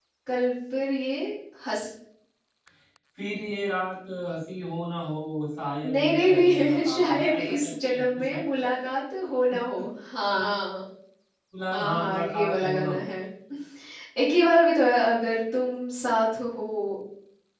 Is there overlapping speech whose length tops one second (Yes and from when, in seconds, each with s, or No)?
Yes, from 5.8 s